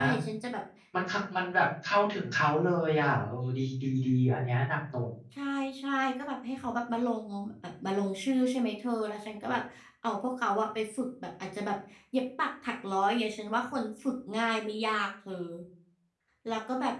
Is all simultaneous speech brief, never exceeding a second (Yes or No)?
Yes